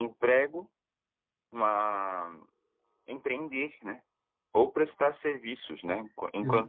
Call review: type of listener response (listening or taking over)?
listening